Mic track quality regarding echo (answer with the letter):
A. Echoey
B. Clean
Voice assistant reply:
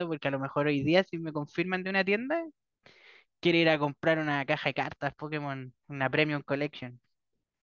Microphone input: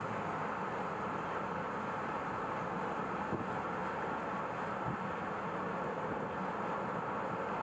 B